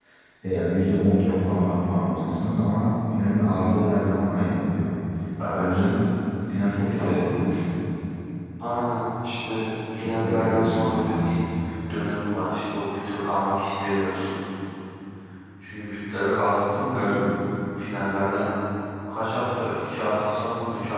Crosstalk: present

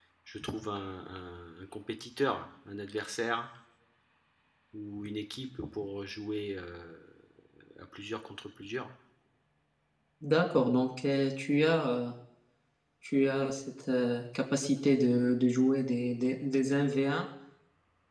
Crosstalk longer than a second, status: none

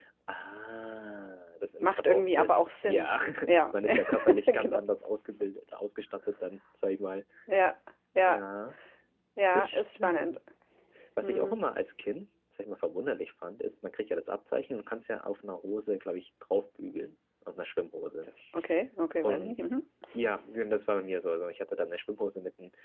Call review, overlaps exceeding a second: present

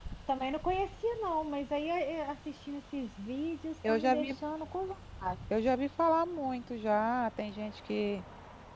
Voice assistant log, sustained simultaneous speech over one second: none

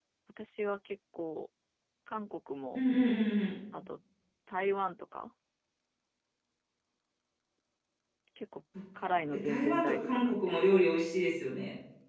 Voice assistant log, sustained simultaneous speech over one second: present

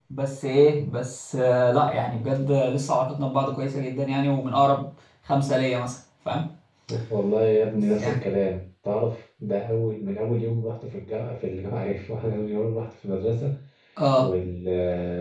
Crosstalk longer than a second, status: none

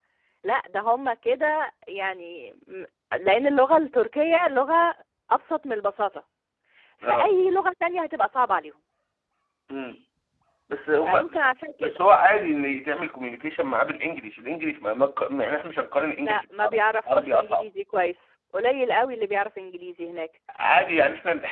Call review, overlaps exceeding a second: present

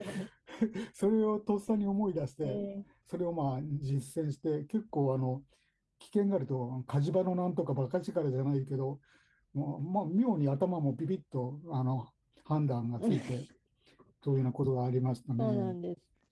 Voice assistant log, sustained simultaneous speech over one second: none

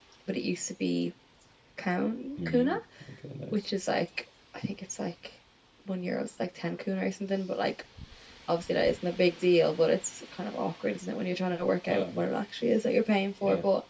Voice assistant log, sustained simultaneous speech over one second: none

